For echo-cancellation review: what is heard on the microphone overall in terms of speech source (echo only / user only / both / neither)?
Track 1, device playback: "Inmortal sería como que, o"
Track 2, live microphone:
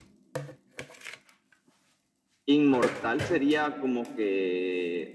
echo only